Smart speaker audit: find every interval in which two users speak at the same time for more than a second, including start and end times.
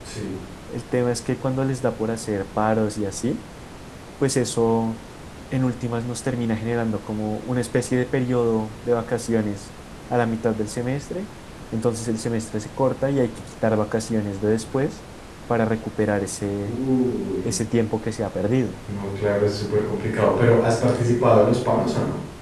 none

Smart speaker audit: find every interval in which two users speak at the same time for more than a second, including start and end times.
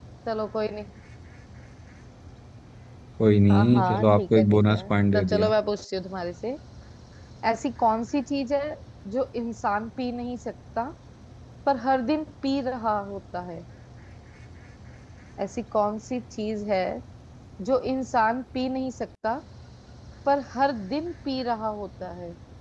3.5-5.5

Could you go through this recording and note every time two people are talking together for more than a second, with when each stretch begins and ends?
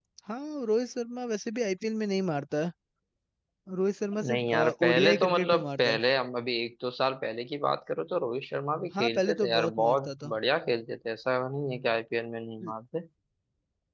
4.3-6.0, 9.0-10.3

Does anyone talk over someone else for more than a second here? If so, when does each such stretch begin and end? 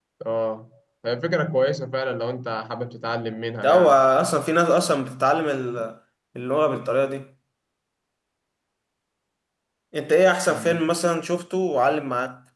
none

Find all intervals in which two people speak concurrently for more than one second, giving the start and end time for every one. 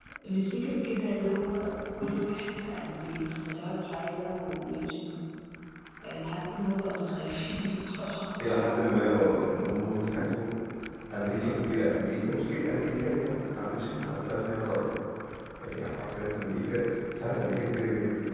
none

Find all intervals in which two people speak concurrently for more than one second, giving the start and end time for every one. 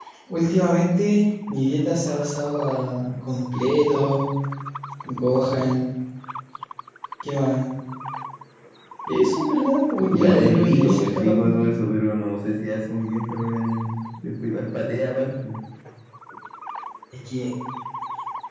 10.1-11.6

